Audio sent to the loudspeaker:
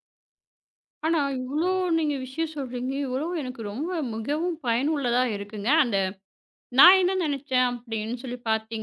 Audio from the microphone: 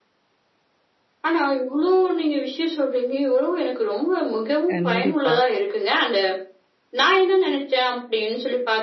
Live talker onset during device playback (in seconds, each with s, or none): 4.7 s